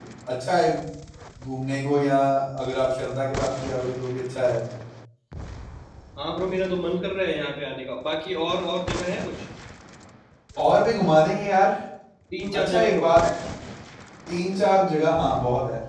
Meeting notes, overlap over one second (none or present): none